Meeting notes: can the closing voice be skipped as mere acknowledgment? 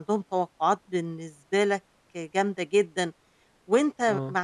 Yes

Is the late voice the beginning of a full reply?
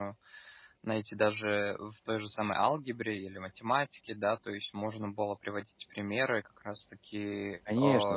Yes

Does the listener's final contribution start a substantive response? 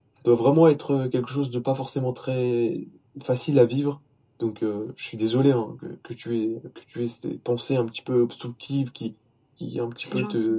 No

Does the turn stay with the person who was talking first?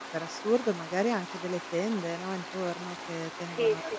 Yes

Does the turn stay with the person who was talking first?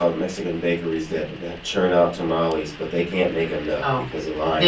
No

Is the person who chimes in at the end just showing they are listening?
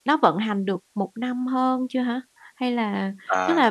Yes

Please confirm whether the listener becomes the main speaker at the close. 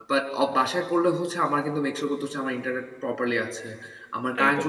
No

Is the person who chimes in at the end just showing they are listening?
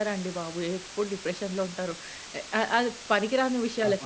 No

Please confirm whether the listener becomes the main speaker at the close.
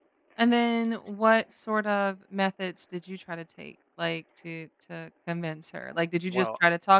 No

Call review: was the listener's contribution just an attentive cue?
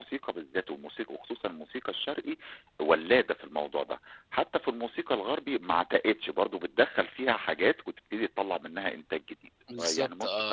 No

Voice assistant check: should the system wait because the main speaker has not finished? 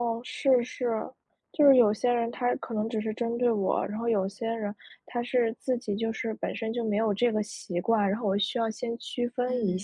No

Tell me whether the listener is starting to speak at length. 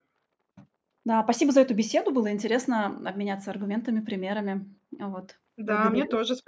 Yes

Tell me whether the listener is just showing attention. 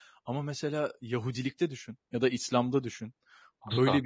Yes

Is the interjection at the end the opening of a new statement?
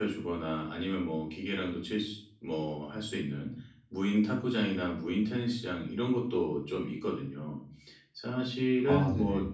No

